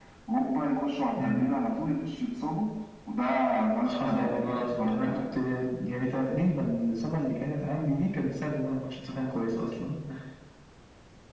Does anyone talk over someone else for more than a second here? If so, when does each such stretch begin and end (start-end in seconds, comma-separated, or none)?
3.9-5.4